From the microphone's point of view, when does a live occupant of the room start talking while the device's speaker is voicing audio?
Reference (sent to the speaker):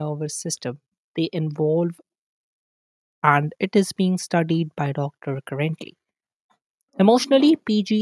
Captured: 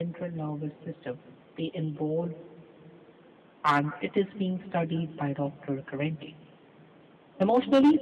none

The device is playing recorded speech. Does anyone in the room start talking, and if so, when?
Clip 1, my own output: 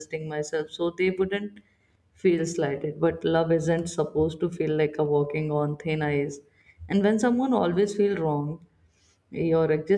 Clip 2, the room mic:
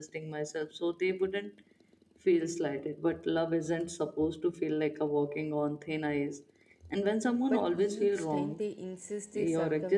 7 s

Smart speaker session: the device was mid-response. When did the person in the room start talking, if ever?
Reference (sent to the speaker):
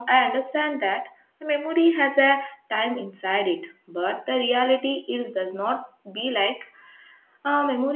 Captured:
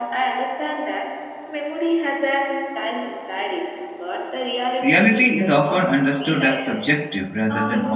5 s

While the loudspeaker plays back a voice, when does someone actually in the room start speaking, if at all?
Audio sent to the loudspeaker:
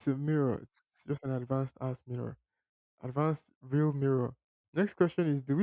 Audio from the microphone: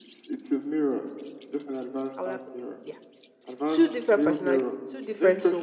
2 s

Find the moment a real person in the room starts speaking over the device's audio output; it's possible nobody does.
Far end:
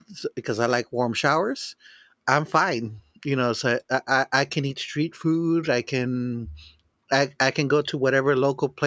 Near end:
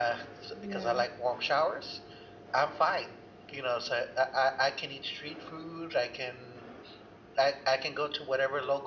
1 s

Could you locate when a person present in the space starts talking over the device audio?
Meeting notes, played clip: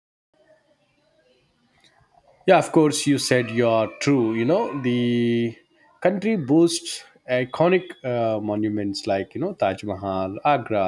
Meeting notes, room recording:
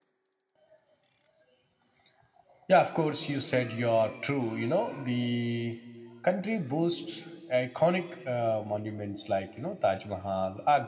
none

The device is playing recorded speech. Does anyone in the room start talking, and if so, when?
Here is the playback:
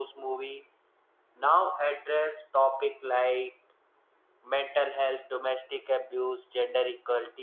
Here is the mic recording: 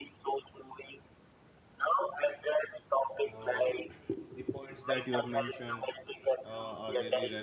3 s

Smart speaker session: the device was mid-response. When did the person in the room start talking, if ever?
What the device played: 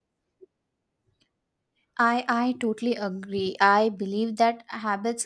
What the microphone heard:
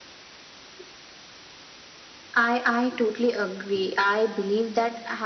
none

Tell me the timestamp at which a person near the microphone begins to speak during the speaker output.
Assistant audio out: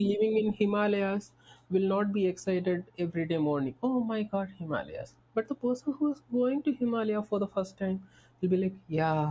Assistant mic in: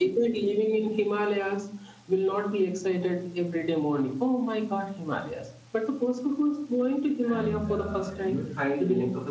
7 s

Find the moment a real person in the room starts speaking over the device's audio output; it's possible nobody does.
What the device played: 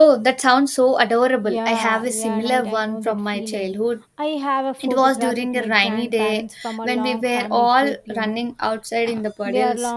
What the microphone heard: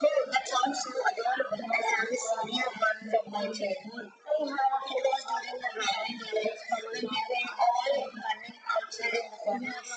none

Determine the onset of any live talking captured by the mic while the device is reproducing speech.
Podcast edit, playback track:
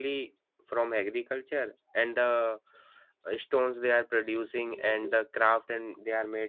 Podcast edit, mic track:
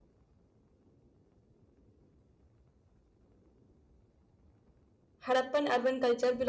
5 s

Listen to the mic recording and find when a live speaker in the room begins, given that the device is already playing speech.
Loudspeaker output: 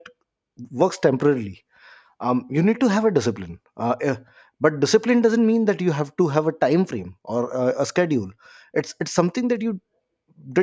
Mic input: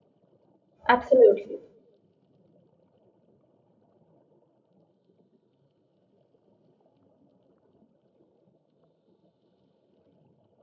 1 s

